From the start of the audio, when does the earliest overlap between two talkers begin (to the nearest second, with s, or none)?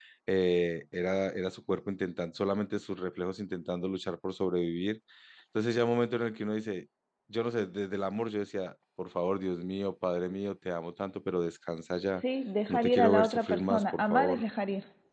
13 s